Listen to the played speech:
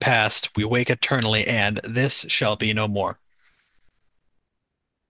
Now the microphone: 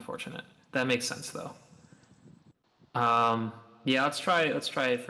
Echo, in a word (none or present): none